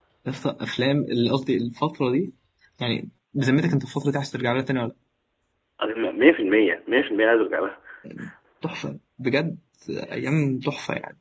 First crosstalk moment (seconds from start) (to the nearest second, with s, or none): none